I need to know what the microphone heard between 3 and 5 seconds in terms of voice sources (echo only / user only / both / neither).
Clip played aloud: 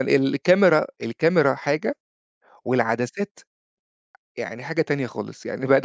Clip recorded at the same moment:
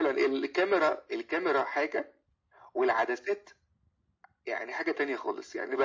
echo only